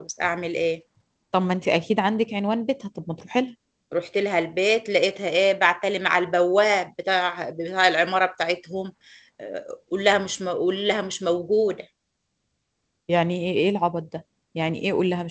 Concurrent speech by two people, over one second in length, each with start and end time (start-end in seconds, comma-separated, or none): none